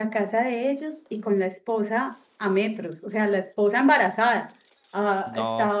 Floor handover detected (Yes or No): No